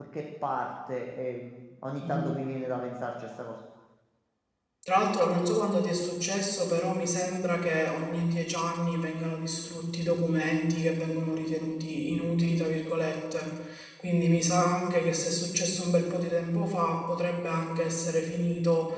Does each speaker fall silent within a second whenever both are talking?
Yes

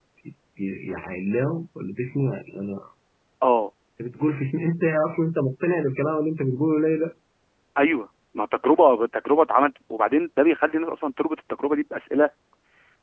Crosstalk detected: No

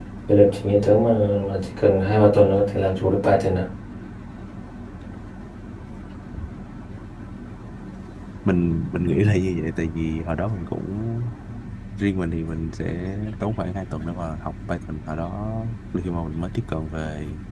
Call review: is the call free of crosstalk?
Yes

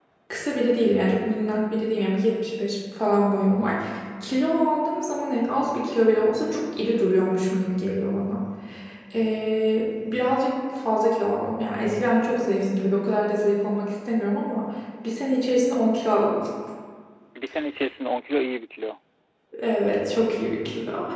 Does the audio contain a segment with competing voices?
No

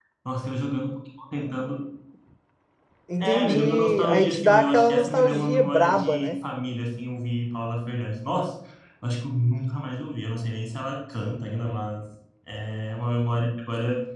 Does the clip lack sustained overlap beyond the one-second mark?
No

